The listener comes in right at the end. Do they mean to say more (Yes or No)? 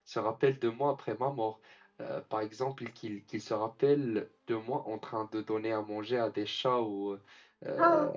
No